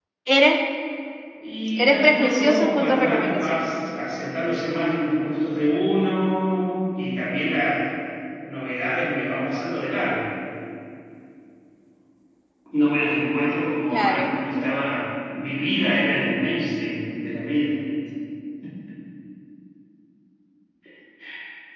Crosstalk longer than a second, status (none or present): present